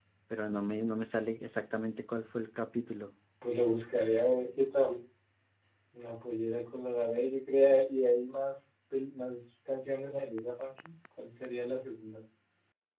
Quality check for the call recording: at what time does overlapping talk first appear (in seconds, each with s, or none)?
none